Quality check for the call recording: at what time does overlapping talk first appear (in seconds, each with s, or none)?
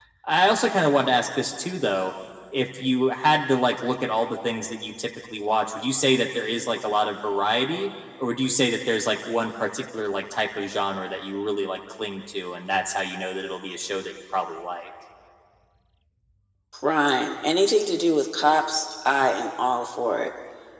none